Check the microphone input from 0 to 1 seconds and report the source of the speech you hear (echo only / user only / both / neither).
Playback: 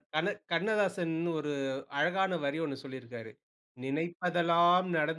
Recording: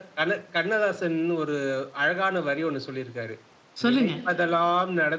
echo only